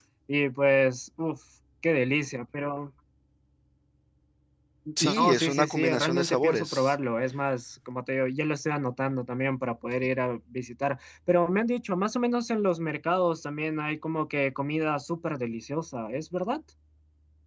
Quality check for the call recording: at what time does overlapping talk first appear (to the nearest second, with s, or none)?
5 s